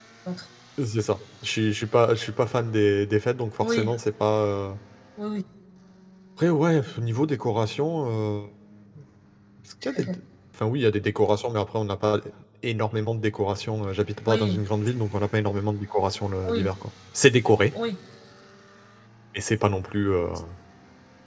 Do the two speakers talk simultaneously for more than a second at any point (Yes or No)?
No